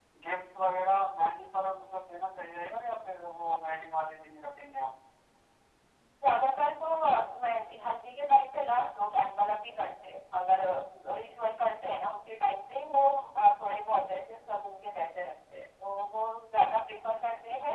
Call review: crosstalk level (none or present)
none